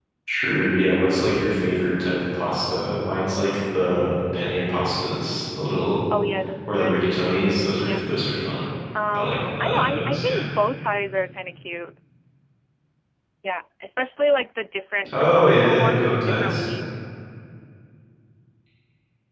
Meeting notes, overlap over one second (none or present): present